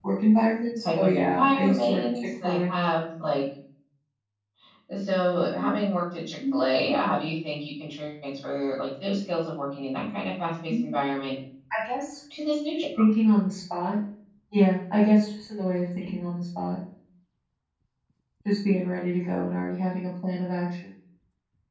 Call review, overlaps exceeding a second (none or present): present